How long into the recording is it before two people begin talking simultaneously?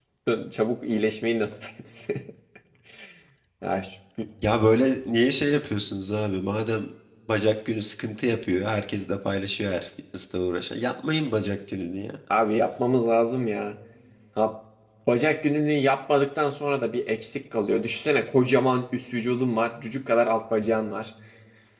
none

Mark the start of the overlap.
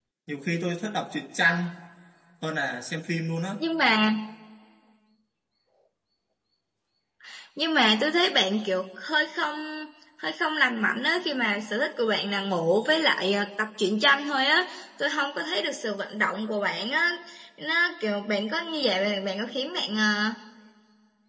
none

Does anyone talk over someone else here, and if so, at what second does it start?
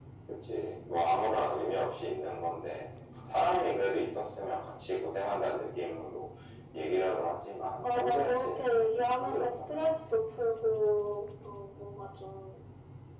7.8 s

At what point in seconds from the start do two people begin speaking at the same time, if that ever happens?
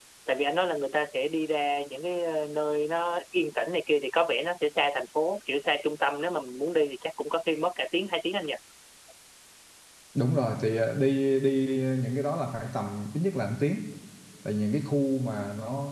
none

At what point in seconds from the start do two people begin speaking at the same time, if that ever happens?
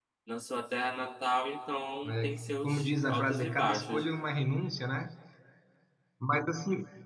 2.0 s

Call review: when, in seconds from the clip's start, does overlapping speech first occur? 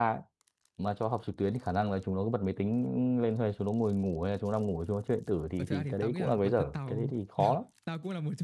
5.6 s

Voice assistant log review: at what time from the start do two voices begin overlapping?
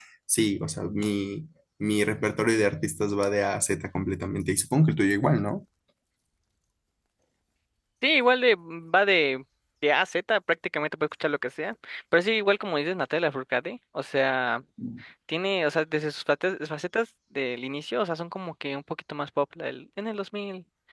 none

